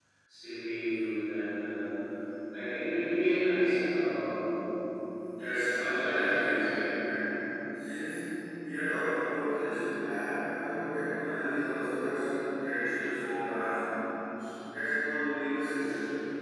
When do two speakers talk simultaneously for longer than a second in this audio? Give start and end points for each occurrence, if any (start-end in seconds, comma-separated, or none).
5.5-6.8